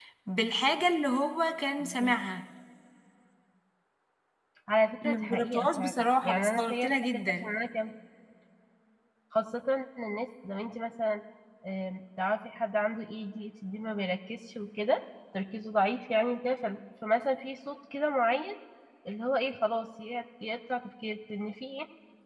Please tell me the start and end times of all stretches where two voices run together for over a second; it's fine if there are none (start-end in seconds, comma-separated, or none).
5.0-7.5